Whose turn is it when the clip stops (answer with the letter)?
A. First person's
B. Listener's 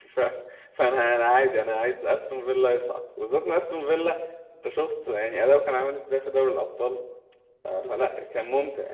A